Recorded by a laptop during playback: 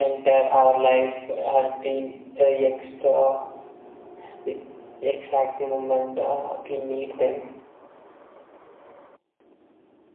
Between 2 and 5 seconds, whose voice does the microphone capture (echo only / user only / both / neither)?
echo only